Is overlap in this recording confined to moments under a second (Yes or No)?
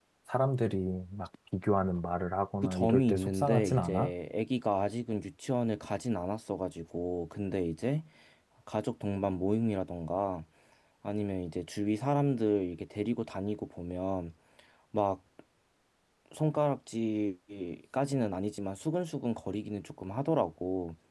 No